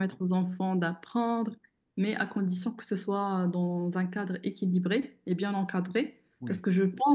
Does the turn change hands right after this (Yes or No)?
No